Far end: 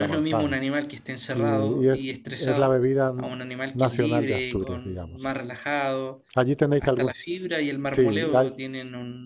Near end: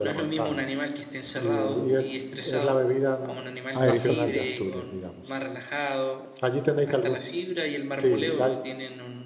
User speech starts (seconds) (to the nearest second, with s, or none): 4 s